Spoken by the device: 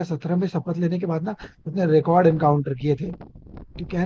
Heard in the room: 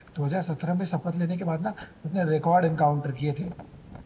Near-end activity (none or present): none